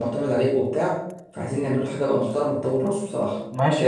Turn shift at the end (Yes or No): Yes